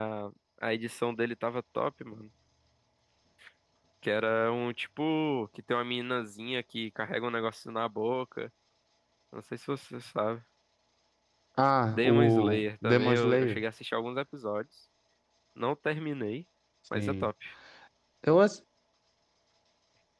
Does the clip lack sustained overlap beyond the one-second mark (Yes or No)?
No